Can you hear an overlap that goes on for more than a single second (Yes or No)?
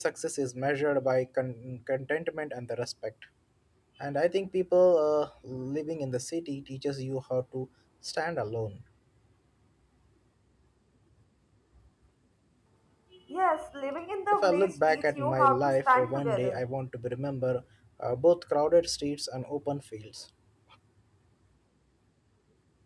Yes